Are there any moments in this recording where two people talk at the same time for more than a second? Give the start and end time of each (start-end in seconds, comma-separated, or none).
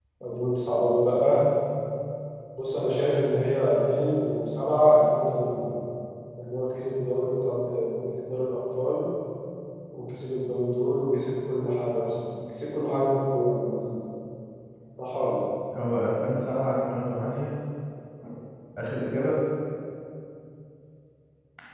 none